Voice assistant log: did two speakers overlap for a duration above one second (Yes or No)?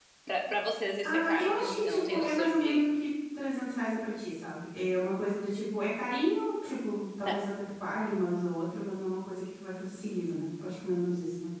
Yes